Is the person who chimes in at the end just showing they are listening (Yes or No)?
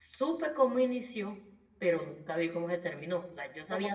No